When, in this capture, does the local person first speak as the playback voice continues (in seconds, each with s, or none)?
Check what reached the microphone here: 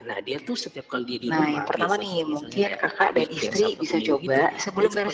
none